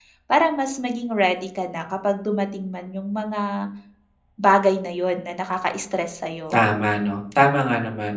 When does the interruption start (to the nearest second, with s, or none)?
none